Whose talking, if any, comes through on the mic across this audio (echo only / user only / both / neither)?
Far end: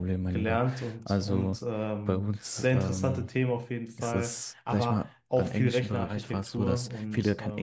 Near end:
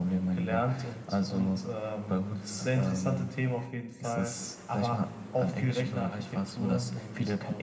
echo only